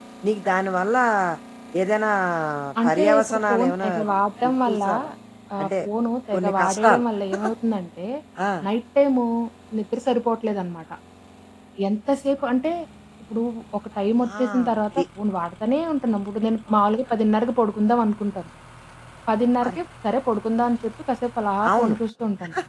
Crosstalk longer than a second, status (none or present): present